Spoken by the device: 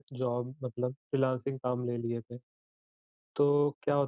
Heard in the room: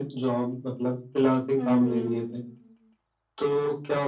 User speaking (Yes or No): Yes